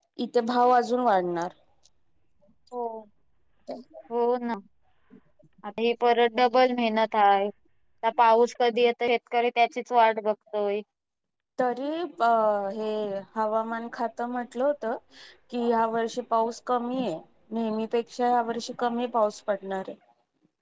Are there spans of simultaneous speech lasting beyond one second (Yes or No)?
No